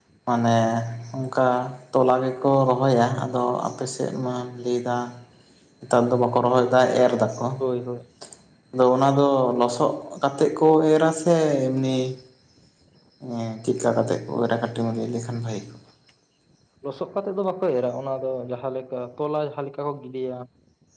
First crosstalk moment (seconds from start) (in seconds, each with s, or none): none